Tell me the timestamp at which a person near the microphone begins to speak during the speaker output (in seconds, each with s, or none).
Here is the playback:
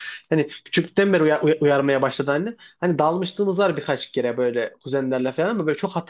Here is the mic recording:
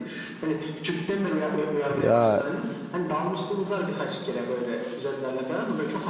1.9 s